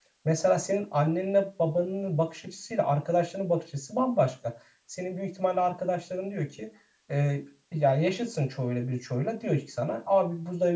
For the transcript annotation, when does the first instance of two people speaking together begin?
none

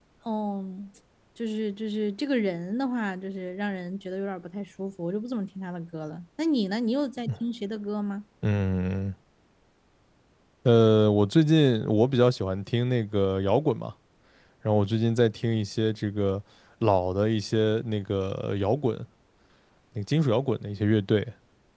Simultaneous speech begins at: none

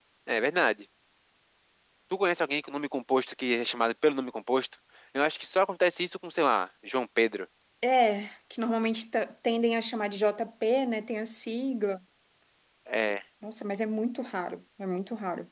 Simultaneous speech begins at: none

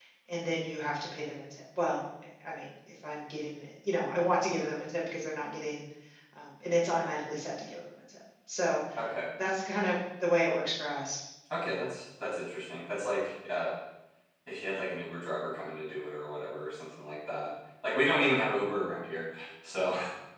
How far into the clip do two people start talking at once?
none

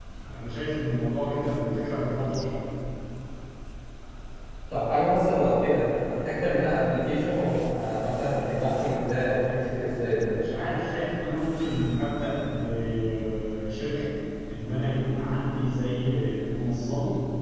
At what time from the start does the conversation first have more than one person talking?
none

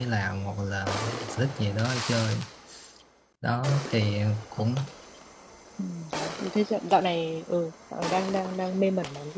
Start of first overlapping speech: none

